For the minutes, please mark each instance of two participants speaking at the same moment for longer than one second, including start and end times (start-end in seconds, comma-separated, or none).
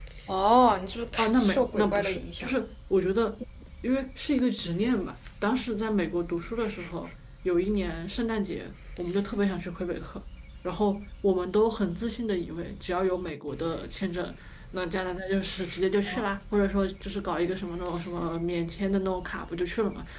1.2-2.5